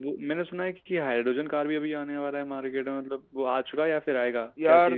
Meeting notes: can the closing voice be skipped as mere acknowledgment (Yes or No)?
No